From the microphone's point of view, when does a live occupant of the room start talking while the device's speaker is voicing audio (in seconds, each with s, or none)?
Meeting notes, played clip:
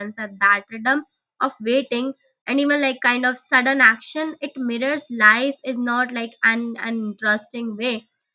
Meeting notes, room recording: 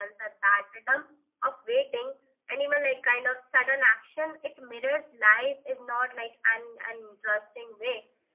none